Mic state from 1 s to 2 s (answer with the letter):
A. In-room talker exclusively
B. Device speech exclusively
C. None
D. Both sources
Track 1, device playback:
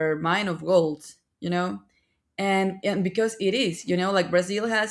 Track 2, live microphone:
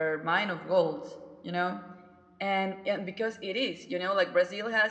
B